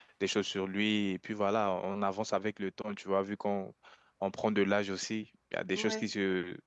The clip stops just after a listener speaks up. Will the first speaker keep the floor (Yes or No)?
Yes